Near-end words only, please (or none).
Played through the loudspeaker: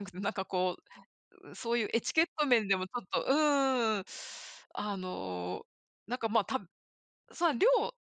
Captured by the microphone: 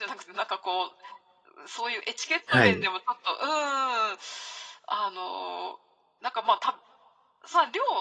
はい。